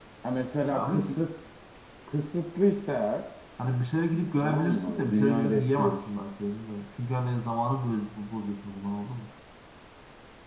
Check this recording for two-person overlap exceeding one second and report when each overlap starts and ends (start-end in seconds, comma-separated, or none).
4.4-6.1